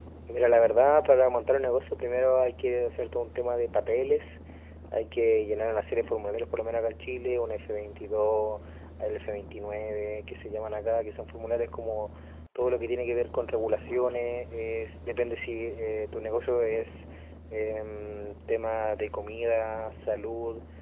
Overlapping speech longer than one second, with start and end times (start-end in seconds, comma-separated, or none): none